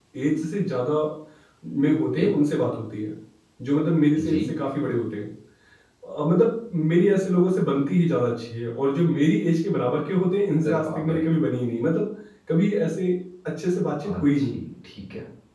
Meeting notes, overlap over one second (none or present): none